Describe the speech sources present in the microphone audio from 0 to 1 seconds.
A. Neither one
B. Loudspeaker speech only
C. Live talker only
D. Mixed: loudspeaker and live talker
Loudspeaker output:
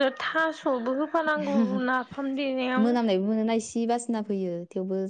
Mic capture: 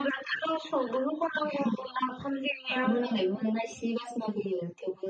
B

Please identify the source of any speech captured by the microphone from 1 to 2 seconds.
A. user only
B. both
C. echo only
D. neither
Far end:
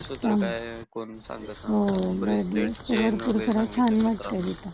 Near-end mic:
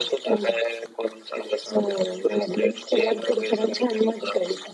C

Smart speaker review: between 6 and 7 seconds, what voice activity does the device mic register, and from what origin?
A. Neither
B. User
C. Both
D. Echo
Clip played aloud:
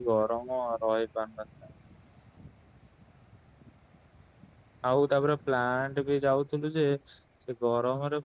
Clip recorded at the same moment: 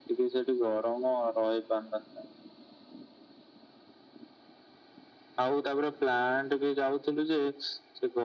D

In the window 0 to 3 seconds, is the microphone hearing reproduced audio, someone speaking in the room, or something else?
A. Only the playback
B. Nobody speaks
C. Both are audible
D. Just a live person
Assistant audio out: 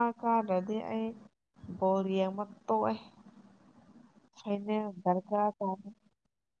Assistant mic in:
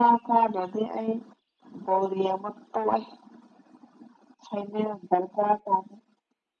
A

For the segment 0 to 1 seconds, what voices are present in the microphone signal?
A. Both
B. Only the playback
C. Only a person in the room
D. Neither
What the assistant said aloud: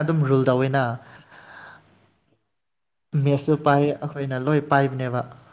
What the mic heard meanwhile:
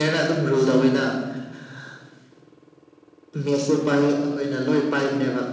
B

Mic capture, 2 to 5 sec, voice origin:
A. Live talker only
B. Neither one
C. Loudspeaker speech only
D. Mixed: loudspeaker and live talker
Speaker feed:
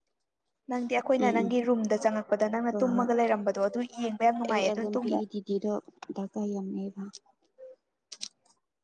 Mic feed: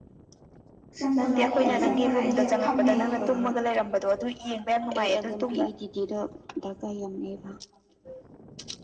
D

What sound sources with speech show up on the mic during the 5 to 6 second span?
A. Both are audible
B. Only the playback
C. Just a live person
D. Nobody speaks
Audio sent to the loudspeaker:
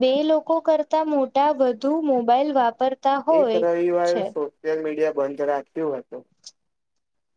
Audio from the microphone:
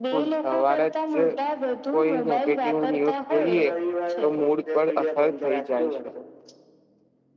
A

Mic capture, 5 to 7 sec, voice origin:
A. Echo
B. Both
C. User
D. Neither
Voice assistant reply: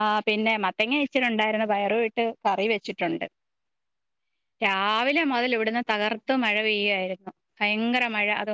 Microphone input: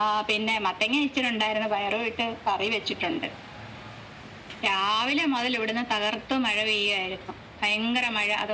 A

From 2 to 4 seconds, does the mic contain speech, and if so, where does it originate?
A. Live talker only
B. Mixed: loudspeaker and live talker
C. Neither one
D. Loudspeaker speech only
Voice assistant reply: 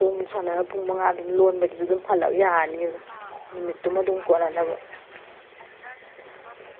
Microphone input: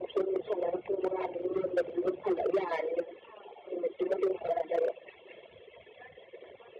D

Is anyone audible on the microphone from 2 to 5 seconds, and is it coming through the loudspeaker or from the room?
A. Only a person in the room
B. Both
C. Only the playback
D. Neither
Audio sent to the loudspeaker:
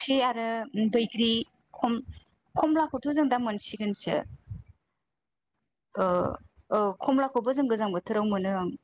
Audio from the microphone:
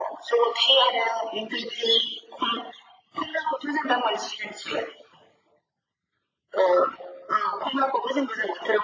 C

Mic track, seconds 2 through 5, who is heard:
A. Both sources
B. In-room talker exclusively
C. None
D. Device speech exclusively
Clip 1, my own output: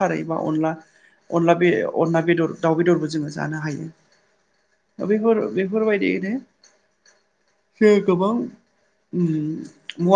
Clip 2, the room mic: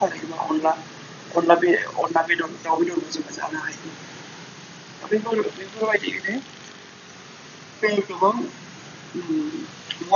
D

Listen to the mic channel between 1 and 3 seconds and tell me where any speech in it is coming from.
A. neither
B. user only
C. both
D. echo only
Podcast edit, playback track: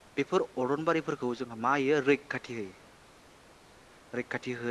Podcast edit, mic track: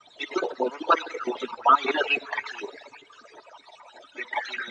D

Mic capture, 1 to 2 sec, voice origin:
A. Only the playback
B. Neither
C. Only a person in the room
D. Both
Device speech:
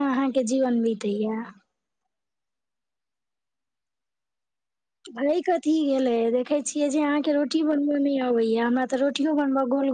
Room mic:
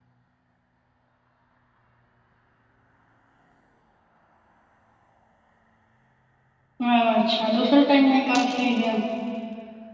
B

